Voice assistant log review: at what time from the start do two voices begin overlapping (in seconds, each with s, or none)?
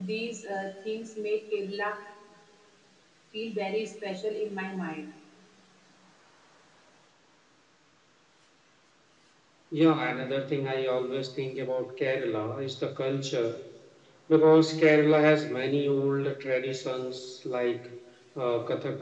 none